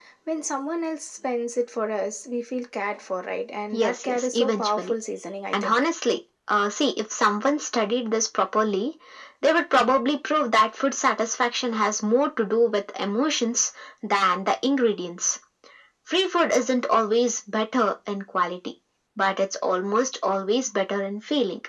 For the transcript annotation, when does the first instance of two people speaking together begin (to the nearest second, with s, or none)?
4 s